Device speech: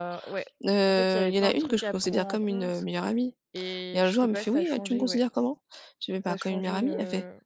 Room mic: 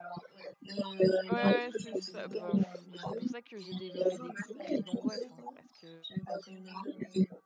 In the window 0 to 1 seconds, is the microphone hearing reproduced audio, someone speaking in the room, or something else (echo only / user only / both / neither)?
echo only